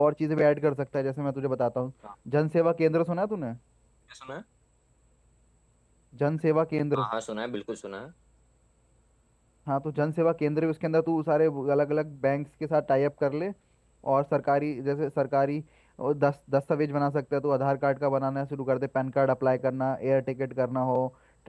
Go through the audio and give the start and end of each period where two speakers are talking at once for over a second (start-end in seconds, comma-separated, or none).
none